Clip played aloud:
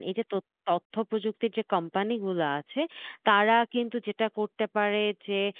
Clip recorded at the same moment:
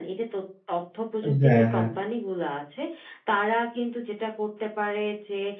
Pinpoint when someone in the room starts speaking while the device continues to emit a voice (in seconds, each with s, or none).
1.2 s